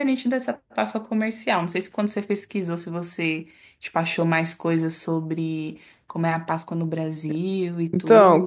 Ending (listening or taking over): taking over